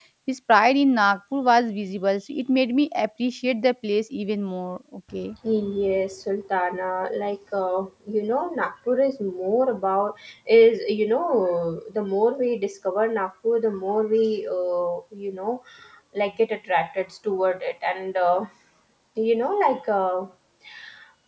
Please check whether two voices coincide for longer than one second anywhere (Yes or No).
No